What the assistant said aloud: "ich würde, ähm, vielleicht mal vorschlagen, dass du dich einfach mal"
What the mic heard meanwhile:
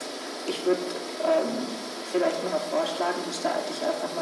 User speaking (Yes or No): No